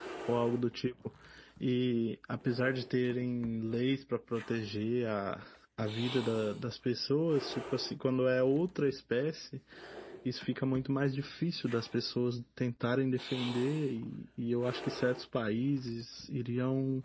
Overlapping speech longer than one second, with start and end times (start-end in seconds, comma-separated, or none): none